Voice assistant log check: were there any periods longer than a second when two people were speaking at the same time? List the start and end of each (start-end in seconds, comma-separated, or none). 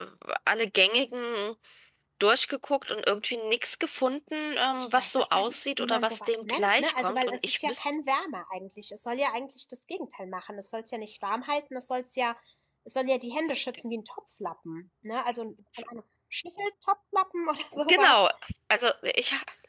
4.8-7.8